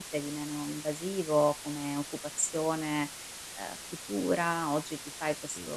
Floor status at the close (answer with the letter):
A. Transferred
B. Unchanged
B